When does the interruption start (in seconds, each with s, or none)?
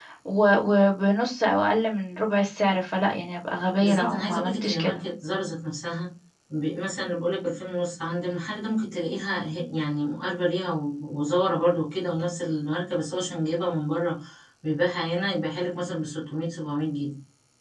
3.8 s